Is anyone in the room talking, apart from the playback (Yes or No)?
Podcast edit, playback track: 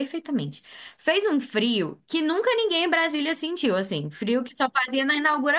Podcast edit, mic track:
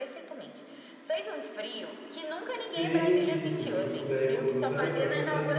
Yes